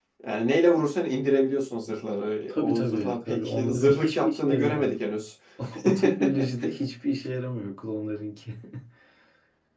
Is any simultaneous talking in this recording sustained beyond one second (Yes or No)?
Yes